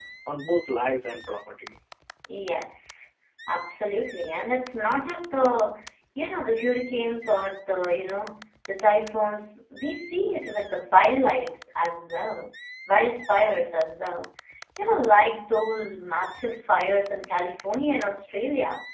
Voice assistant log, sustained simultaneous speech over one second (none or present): none